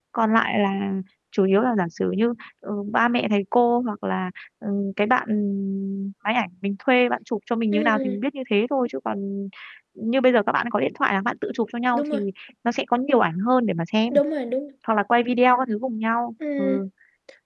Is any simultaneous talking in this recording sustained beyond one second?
No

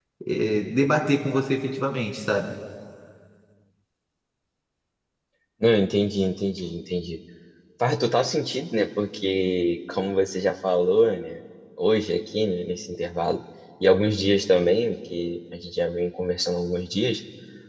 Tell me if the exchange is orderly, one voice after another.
Yes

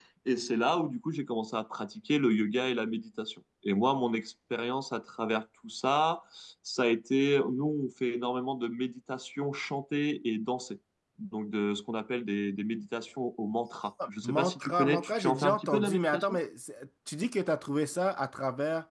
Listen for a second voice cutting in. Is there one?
Yes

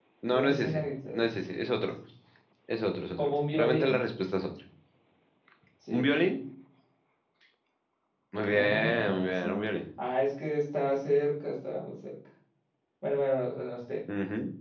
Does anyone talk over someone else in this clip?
Yes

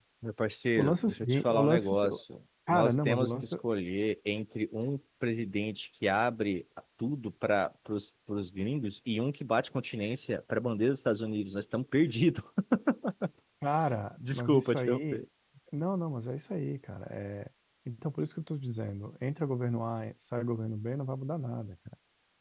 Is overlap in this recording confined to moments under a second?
No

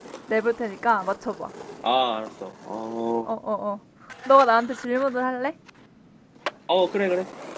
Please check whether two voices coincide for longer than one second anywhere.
No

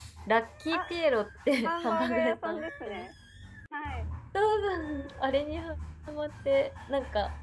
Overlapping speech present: Yes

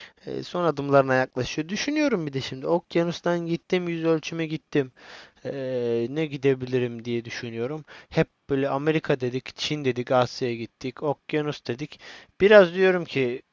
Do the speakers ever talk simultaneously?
No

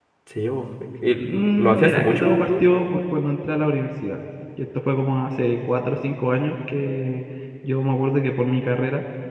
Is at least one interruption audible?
Yes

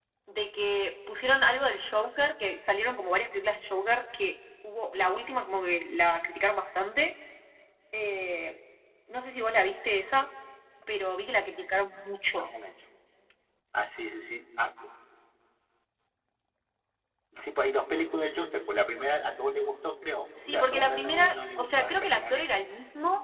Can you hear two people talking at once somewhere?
Yes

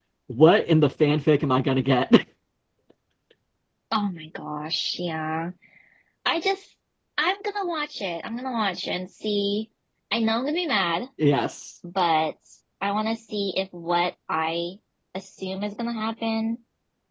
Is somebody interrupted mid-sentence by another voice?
No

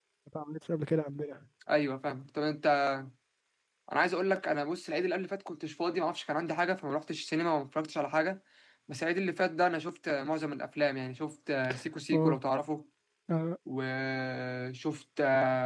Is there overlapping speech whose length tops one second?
No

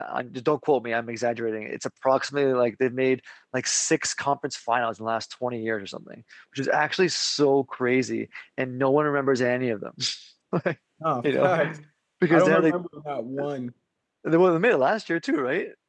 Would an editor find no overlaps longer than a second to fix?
Yes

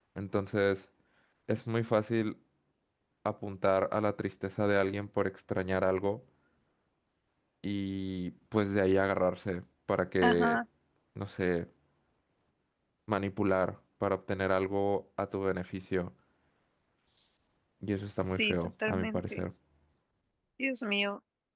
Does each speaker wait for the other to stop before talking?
No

